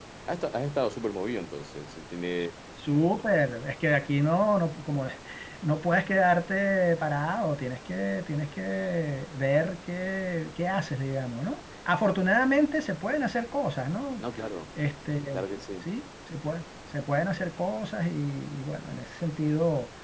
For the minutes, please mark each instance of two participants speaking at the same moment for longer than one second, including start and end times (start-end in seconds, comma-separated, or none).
none